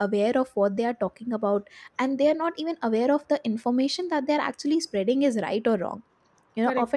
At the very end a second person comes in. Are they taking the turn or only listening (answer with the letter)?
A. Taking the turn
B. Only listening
B